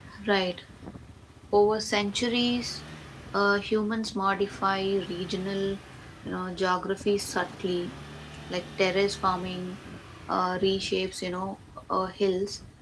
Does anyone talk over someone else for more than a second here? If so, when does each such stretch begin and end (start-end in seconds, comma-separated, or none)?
none